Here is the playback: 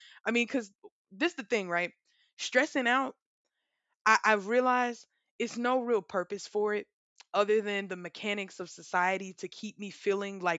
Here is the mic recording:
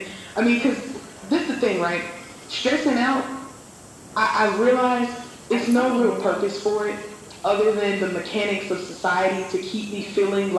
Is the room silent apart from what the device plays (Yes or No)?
No